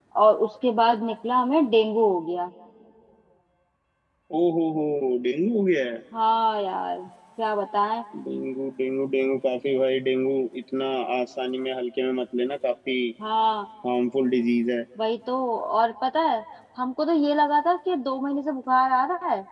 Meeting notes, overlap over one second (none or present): none